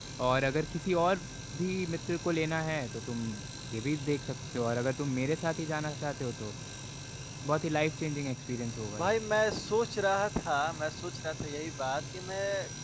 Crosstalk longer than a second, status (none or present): none